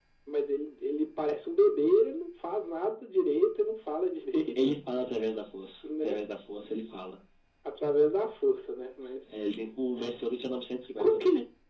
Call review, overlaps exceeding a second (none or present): none